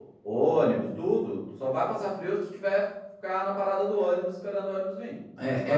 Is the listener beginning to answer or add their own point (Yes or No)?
Yes